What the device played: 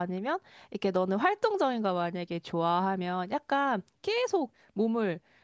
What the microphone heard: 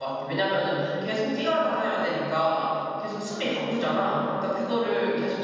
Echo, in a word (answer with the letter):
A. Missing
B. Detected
A